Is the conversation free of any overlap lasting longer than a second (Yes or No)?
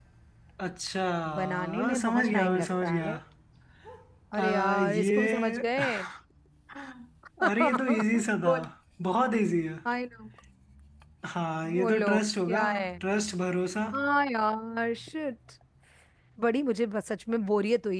No